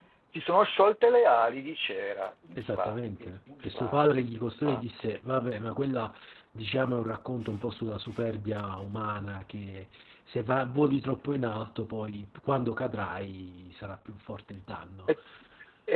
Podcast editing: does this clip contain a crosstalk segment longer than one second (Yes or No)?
Yes